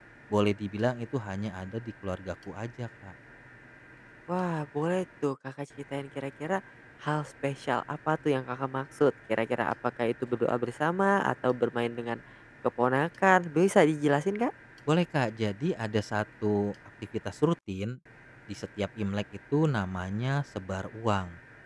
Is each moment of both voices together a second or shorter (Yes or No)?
Yes